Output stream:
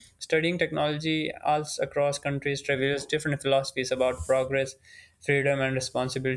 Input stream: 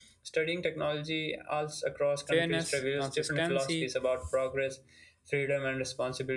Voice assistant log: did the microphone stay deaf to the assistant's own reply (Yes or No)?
No